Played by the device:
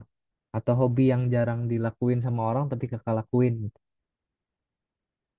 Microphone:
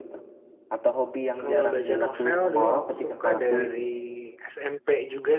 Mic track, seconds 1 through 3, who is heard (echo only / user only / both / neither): both